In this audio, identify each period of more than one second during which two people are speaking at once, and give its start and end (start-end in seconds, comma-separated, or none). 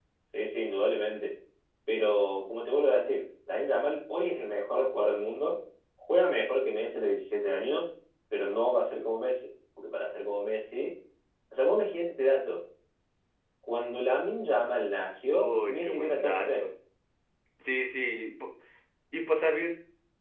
15.4-16.6